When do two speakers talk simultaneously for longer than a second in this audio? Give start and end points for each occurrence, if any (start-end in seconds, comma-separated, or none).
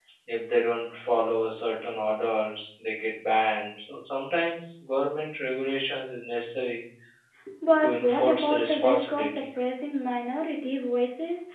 7.8-9.4